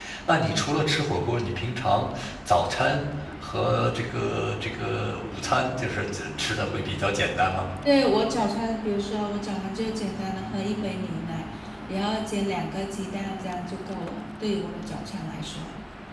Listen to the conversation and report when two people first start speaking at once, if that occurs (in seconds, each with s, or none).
none